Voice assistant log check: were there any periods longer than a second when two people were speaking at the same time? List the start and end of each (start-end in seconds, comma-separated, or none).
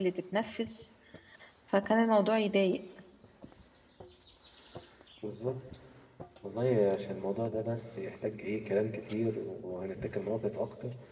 none